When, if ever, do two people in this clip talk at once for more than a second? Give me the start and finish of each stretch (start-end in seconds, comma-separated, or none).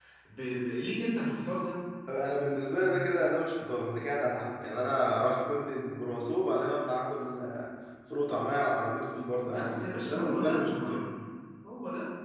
9.4-11.0